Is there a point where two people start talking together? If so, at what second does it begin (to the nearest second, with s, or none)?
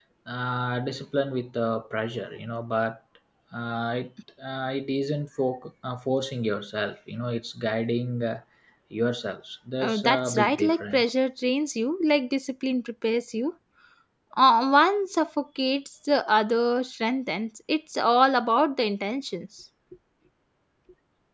10 s